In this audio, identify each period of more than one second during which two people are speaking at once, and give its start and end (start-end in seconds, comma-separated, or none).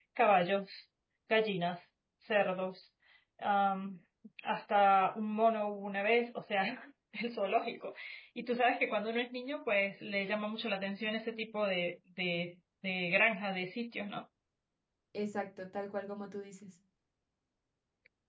none